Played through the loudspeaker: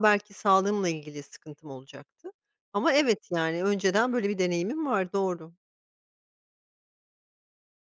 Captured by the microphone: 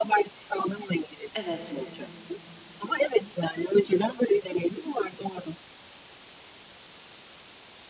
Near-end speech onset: 1 s

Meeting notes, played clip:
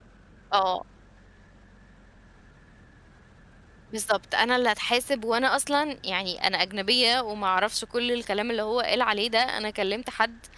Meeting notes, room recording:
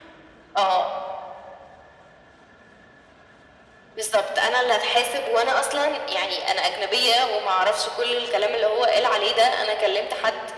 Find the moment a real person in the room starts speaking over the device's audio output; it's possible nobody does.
none

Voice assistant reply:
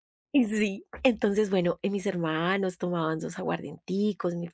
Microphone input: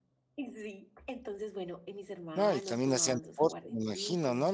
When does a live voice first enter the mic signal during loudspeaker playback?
2 s

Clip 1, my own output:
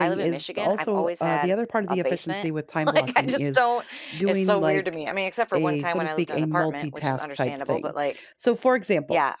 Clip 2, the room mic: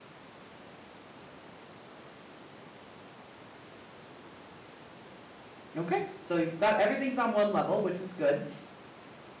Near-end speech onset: 6 s

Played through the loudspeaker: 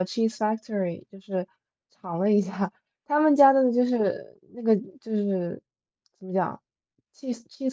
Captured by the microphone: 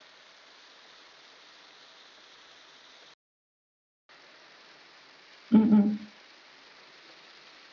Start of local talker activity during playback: 5 s

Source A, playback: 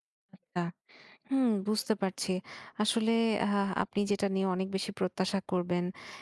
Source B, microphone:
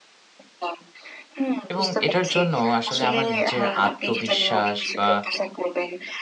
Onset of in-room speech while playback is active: 2 s

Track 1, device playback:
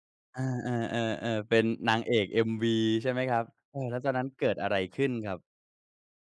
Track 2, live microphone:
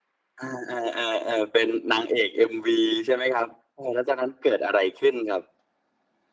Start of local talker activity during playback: none

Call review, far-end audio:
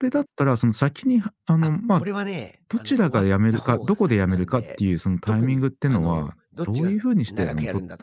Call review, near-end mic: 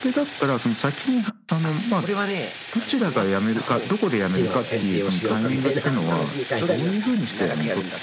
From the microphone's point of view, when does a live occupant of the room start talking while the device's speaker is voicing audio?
4 s

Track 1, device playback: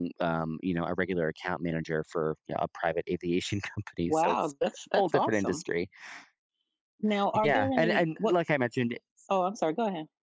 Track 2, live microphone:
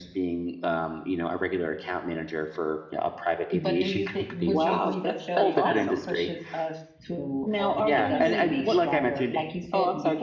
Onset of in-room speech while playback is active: 4 s

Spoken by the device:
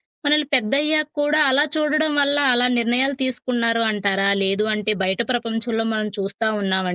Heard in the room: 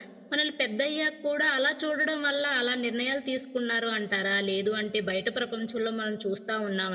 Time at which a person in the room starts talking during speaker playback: none

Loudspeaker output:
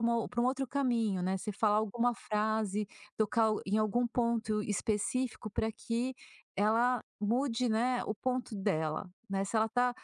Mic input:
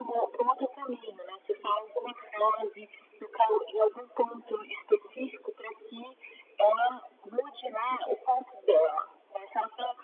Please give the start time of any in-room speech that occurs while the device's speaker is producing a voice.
none

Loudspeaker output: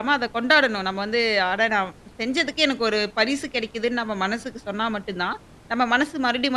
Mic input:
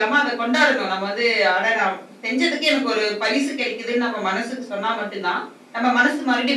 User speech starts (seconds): none

